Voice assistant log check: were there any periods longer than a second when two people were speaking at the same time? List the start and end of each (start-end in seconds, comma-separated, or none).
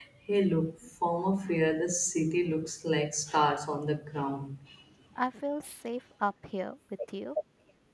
none